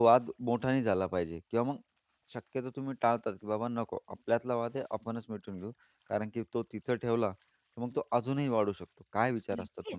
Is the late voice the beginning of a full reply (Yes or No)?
Yes